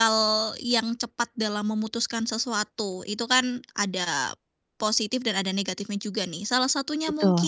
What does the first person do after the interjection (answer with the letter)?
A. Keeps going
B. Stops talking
A